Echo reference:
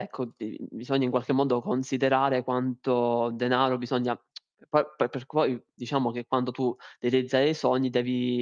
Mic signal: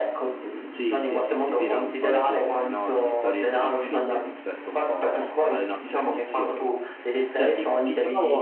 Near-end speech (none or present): present